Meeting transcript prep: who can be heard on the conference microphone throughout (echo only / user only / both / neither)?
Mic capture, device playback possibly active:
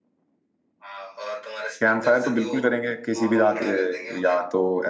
both